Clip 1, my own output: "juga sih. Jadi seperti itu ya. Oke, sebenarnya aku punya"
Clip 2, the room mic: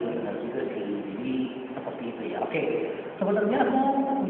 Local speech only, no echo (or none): none